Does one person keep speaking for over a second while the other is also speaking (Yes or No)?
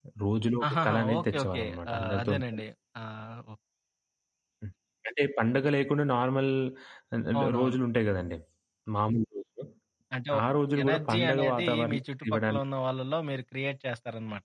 Yes